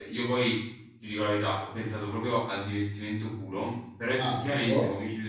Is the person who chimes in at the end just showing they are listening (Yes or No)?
Yes